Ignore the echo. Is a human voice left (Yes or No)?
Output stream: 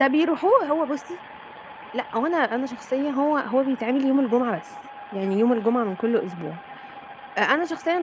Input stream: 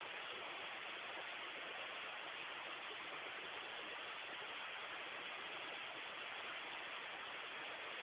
No